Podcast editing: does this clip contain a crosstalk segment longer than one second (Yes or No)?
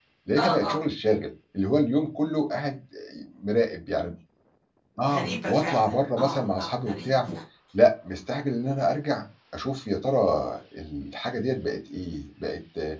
Yes